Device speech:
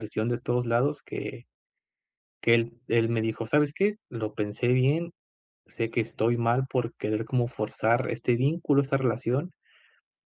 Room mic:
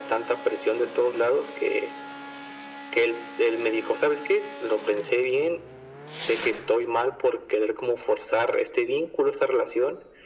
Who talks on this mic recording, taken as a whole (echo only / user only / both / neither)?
echo only